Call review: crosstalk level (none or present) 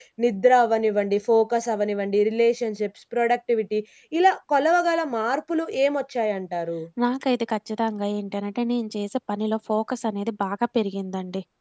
none